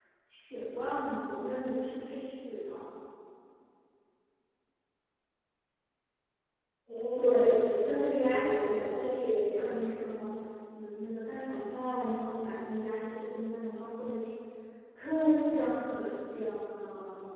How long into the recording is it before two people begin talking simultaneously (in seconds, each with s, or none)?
7.2 s